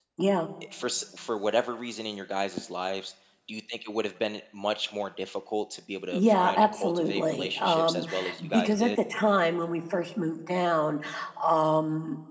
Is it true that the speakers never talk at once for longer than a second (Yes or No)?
No